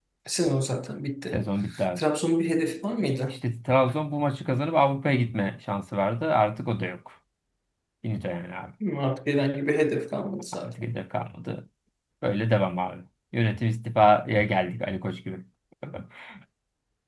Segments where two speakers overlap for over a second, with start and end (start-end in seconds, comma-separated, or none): none